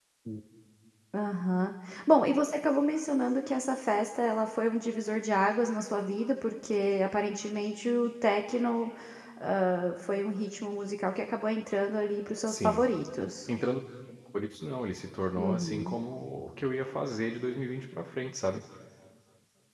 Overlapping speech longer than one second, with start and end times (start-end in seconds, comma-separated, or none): none